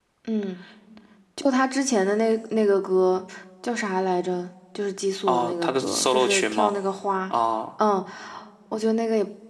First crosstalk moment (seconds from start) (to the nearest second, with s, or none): 5 s